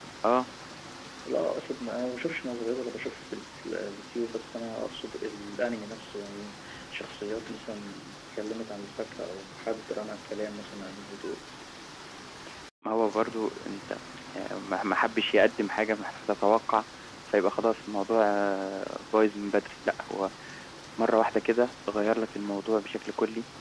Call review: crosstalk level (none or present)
none